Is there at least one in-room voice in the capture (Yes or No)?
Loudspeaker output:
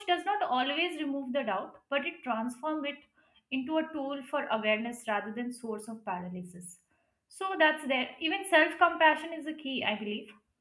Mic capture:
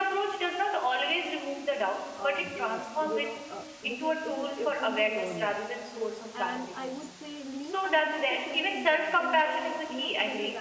Yes